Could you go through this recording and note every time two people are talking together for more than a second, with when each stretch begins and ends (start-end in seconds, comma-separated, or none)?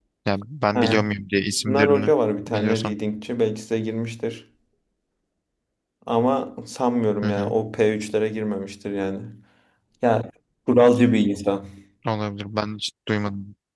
none